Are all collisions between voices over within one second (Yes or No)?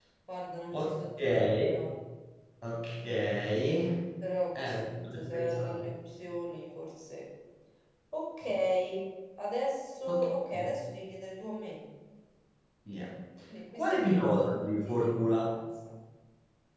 No